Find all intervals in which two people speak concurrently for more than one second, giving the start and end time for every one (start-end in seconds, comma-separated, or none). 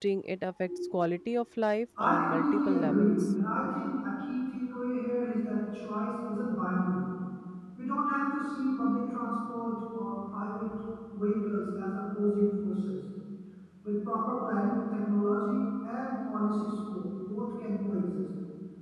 2.0-3.2